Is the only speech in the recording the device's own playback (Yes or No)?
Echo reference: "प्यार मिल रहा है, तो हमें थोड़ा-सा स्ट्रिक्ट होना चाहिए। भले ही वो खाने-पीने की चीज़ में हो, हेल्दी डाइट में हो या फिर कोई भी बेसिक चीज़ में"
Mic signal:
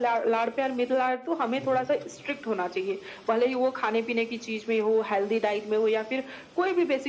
No